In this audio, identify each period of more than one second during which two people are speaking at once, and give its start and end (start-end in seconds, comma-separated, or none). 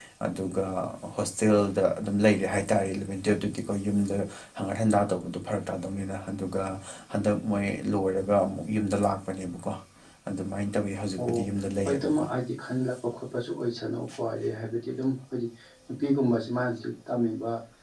none